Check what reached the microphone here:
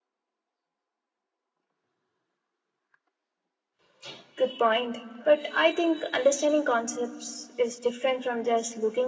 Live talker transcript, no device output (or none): none